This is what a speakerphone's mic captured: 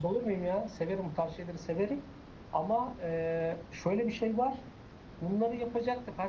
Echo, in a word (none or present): none